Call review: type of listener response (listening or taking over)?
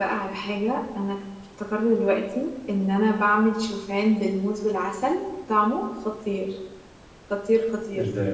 listening